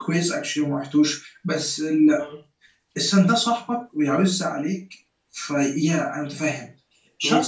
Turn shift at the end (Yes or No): No